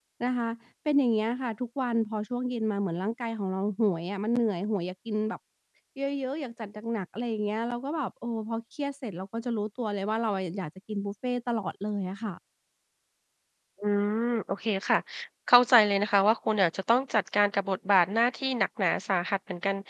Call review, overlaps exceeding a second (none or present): none